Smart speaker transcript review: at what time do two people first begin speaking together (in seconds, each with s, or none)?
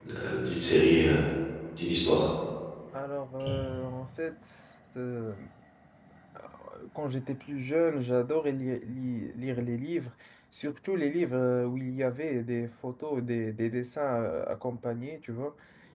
none